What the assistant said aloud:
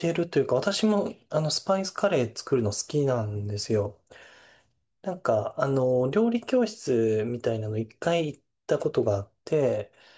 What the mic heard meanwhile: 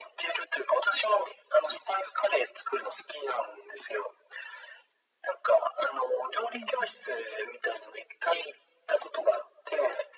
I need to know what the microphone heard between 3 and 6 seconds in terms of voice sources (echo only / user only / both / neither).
echo only